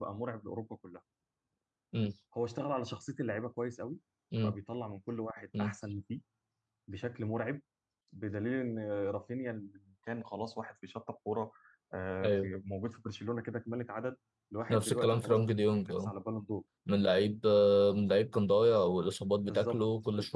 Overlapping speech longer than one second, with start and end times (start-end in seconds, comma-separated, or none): 14.7-16.1